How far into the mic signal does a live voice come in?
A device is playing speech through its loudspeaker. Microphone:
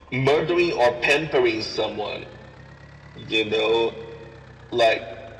none

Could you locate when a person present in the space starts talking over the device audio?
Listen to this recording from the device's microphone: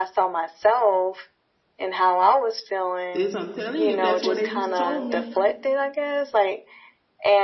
3.1 s

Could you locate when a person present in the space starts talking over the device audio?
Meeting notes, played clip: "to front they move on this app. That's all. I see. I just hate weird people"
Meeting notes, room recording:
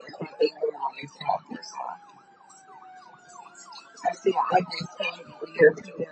none

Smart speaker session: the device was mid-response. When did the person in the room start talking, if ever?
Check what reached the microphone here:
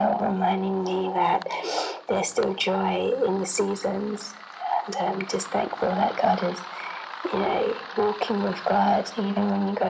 none

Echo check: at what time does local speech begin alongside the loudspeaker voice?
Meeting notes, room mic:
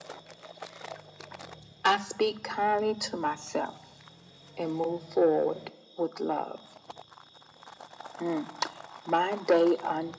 none

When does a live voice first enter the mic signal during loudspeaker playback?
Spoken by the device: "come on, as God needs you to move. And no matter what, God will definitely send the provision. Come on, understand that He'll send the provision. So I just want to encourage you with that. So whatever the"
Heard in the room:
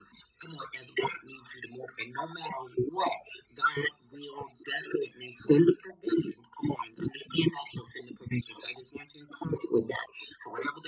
none

